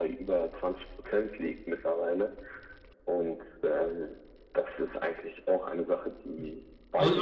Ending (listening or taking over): taking over